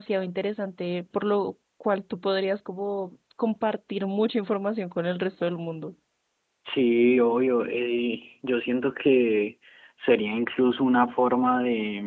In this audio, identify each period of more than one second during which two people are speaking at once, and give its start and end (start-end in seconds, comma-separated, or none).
none